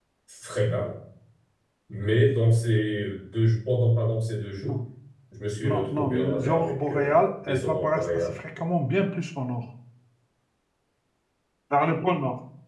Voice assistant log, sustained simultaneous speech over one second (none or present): present